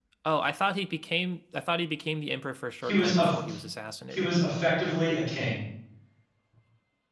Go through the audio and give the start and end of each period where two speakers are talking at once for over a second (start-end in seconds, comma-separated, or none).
none